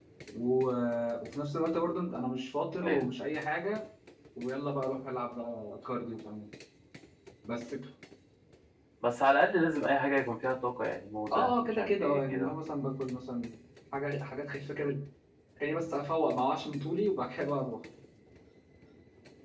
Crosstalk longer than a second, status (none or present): present